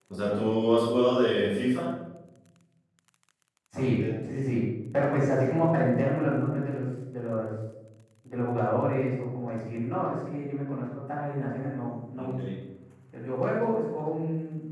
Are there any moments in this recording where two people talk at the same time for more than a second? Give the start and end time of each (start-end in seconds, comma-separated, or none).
none